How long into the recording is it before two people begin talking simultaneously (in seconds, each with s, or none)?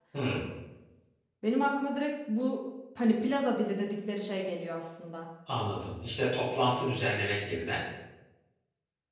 none